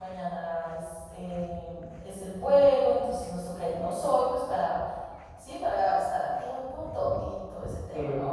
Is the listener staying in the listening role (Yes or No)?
Yes